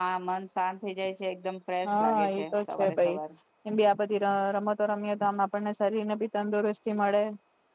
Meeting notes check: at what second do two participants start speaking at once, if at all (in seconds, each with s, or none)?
1.9 s